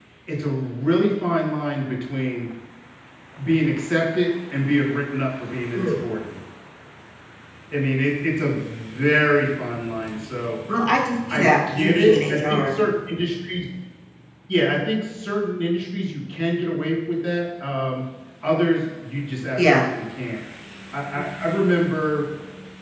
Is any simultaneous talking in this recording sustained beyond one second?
Yes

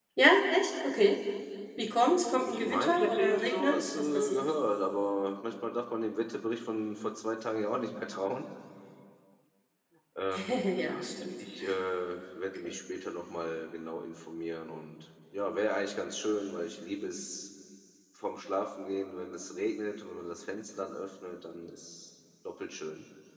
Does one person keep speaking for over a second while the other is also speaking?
Yes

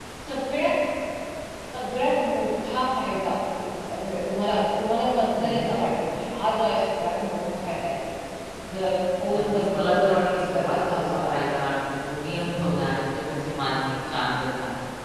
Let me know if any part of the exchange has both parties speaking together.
Yes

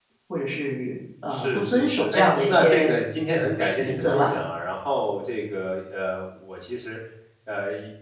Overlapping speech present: Yes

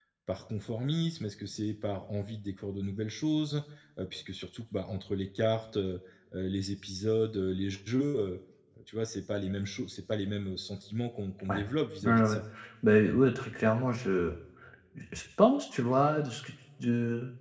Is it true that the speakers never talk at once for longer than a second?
Yes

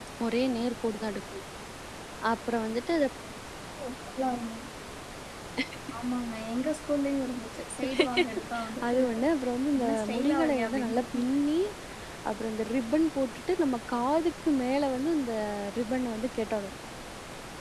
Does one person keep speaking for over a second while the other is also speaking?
Yes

